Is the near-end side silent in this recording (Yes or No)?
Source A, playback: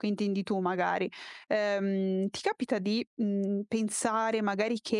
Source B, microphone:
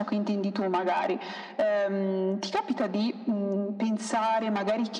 Yes